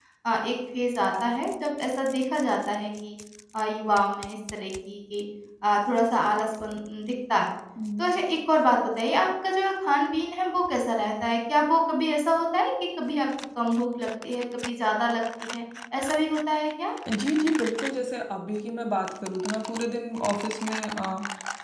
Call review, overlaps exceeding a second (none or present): none